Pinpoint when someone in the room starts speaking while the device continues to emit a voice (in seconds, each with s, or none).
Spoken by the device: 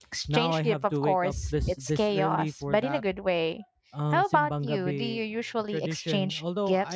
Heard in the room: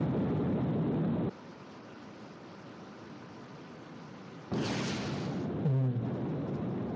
5.6 s